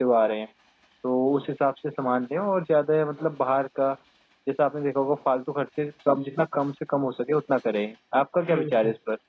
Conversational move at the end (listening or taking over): taking over